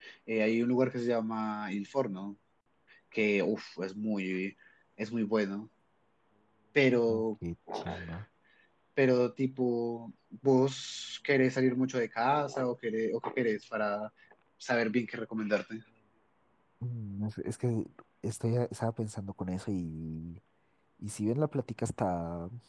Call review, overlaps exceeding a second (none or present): none